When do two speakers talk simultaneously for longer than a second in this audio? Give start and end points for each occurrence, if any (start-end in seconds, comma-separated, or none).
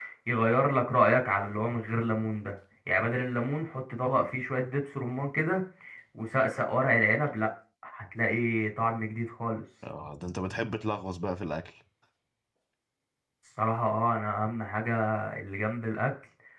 none